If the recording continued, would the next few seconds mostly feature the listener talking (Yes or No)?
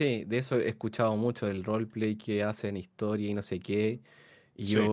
No